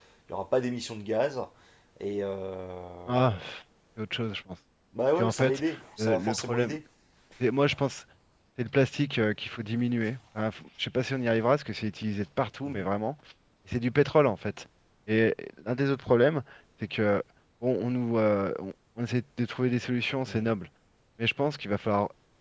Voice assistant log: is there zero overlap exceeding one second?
No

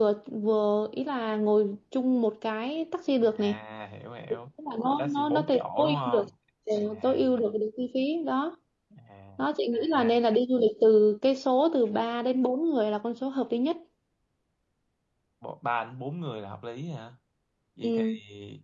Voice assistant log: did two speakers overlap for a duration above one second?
Yes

